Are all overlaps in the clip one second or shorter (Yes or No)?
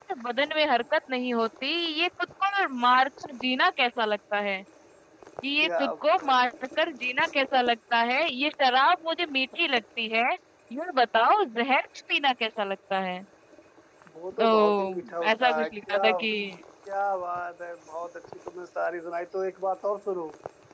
No